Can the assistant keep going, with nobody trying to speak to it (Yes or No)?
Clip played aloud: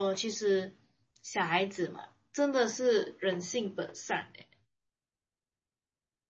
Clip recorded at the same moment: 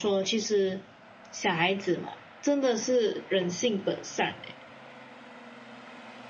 Yes